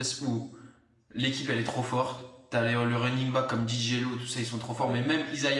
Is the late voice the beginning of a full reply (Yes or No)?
No